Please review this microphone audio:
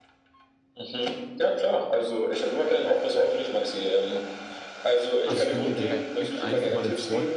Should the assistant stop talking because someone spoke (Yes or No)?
Yes